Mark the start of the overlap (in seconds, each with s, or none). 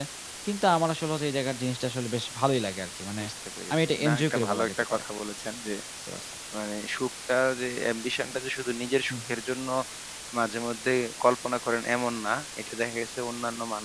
3.7 s